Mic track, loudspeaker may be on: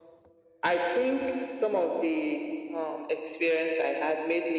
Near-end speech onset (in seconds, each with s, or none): none